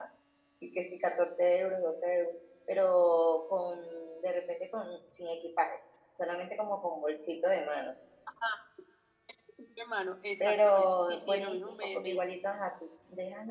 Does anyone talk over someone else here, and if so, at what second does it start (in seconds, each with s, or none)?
10.4 s